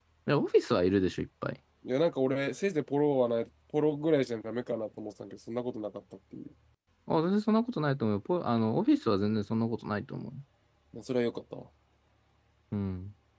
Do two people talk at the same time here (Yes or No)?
No